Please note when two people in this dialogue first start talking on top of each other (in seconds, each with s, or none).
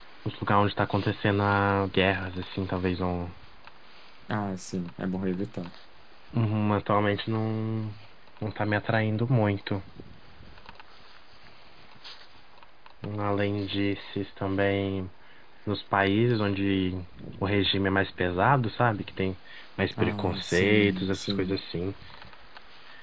20.0 s